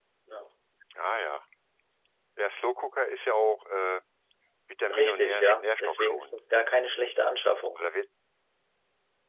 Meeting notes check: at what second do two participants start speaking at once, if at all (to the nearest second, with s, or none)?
5 s